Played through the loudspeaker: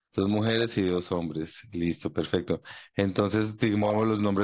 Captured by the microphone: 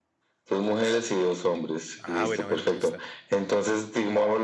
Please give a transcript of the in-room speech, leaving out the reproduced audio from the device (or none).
Ah, bueno, bueno, me gusta.